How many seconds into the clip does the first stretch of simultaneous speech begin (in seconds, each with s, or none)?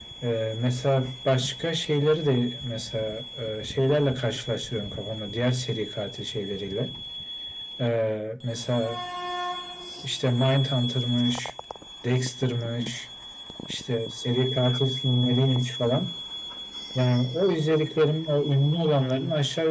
none